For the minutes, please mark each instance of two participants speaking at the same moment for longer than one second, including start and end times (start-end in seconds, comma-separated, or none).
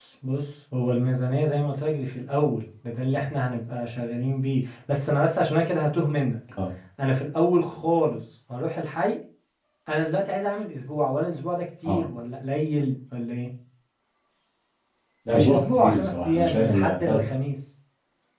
15.3-17.2